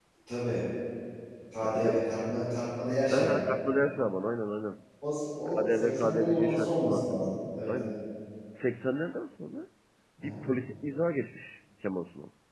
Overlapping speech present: Yes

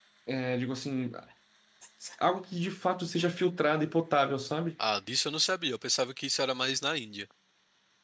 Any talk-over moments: No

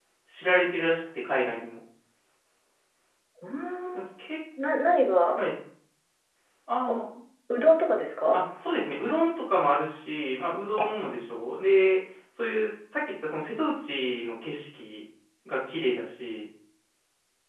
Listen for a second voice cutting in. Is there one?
No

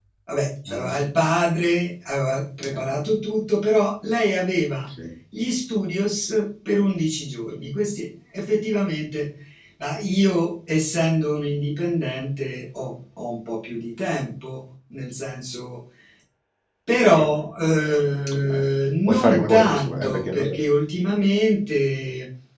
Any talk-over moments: Yes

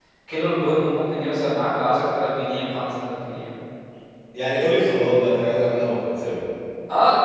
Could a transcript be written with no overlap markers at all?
Yes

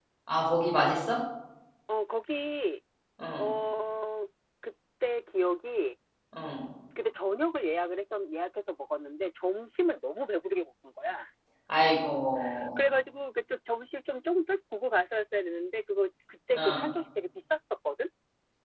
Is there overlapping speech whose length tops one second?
No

